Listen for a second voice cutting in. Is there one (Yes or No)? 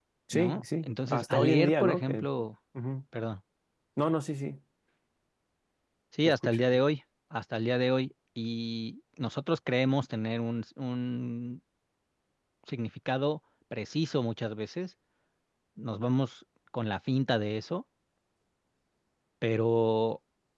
Yes